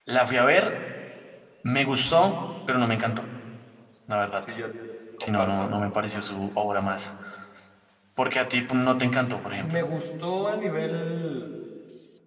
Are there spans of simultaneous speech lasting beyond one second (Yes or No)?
No